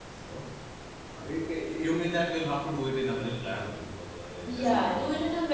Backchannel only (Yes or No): No